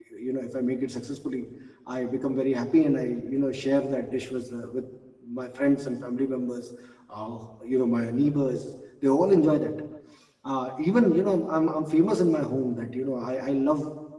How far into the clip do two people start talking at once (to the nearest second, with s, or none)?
none